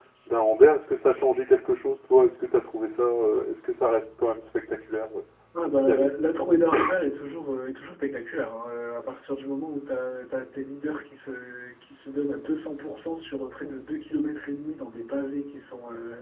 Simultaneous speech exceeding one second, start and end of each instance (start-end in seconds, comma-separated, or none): none